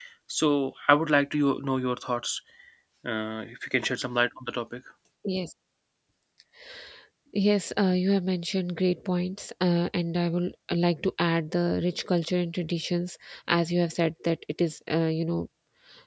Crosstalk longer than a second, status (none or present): none